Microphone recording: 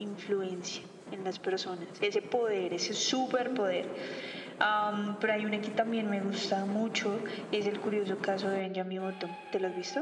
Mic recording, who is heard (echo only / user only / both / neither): echo only